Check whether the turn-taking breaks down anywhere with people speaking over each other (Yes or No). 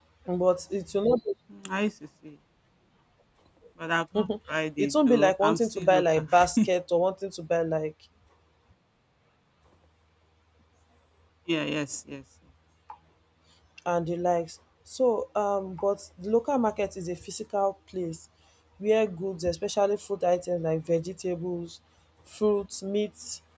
Yes